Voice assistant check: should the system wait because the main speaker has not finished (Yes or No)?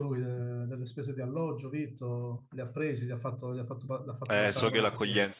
No